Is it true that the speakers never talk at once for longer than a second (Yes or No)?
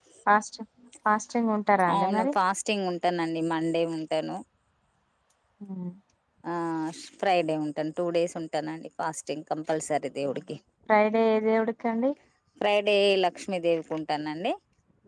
Yes